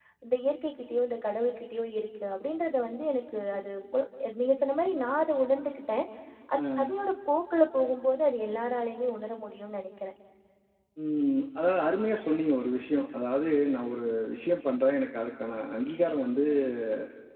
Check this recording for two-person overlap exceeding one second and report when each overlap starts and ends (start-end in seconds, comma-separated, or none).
none